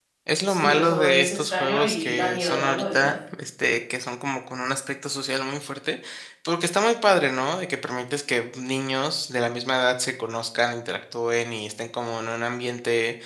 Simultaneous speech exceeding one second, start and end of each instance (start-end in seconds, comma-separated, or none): 0.6-3.1